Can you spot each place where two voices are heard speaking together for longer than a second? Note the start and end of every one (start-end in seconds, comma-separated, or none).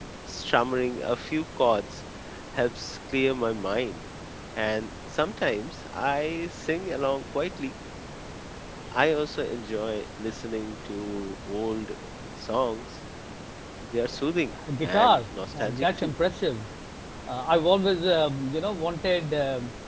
14.8-16.1